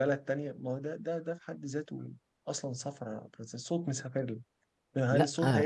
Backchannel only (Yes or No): Yes